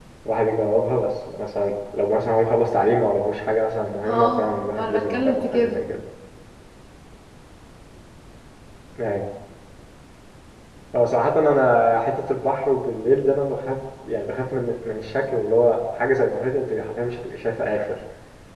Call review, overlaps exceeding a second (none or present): present